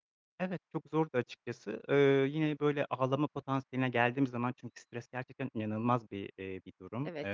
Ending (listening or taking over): listening